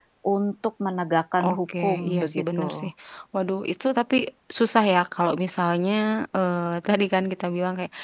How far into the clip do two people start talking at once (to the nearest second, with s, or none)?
1 s